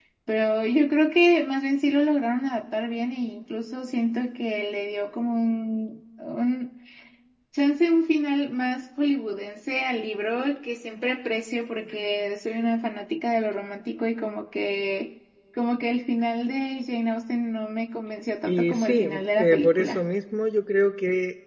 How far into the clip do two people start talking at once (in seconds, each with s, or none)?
18.5 s